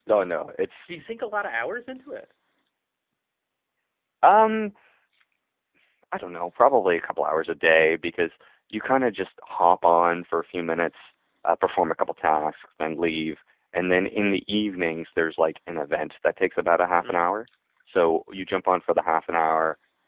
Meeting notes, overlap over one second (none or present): none